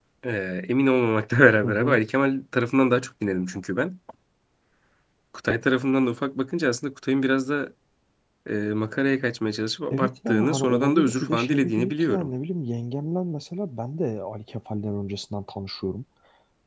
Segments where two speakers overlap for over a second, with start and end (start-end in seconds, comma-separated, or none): 9.9-12.3